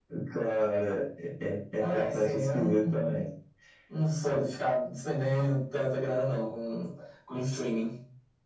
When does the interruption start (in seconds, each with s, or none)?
1.8 s